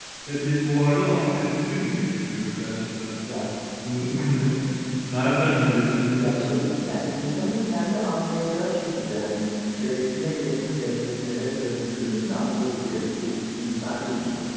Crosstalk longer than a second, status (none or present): none